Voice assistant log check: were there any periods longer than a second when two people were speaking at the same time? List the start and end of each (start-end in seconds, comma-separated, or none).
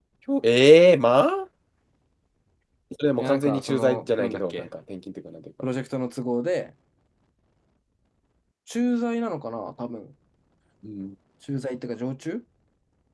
3.2-4.7